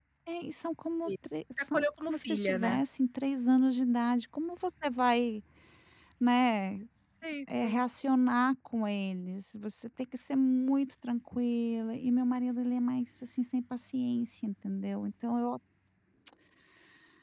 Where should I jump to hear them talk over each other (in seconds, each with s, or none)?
1.6 s